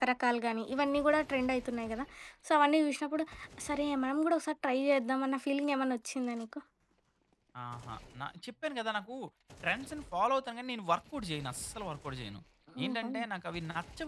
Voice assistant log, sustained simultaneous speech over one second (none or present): none